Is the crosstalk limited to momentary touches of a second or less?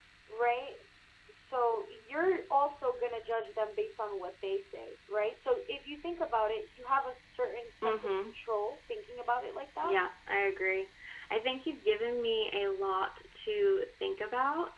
Yes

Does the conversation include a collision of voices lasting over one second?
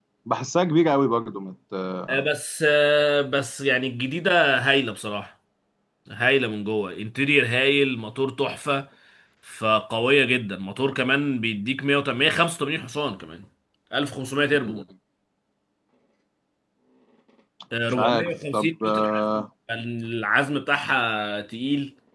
Yes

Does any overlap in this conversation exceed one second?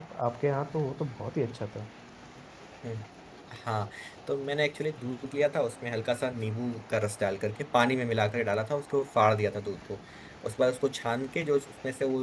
No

